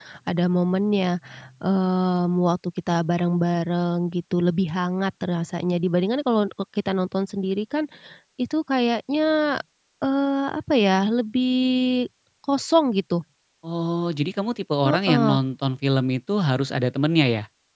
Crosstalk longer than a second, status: none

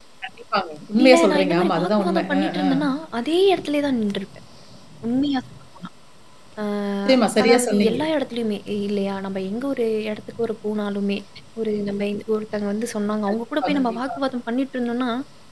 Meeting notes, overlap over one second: present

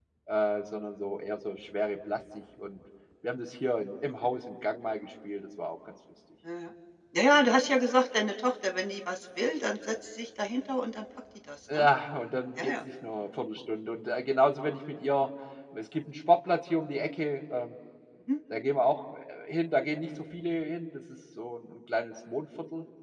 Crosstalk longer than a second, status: none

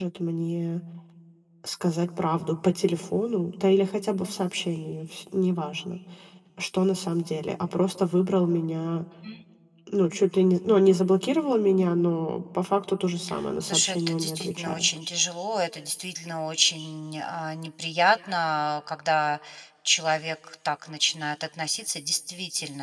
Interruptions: present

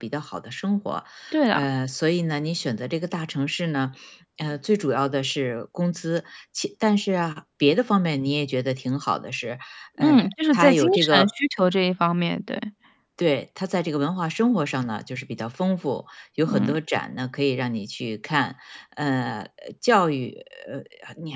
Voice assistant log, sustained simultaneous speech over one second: present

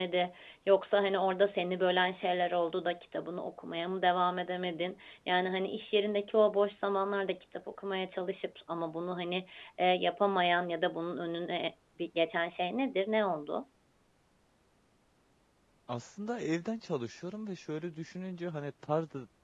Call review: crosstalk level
none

